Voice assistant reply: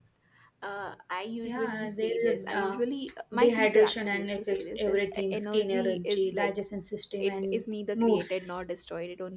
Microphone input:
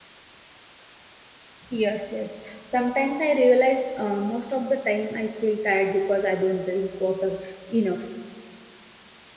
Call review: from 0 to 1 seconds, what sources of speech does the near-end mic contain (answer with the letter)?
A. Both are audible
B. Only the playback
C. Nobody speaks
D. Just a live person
C